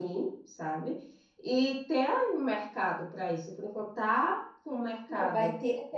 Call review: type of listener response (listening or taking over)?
taking over